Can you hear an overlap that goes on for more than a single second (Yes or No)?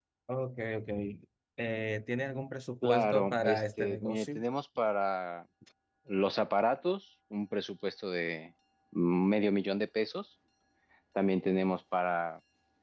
Yes